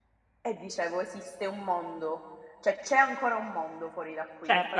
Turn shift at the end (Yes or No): Yes